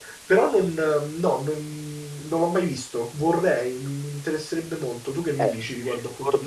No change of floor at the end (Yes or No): No